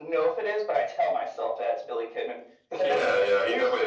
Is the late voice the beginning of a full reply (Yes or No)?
Yes